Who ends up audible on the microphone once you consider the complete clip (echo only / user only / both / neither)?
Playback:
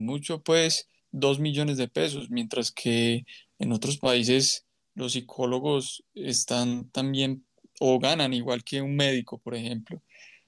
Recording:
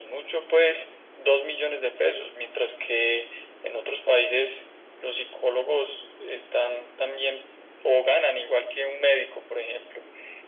echo only